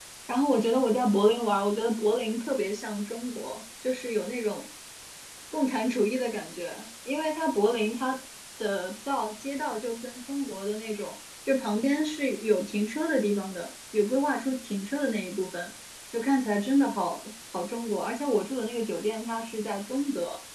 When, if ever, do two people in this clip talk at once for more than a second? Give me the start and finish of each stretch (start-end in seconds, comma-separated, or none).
none